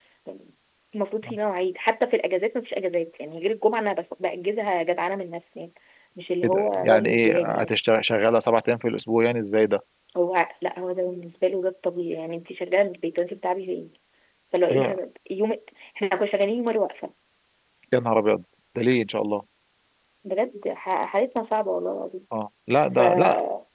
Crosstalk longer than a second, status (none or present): present